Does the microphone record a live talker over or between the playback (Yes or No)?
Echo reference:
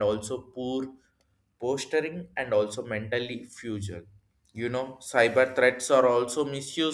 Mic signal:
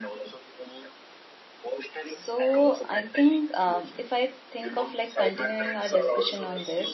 Yes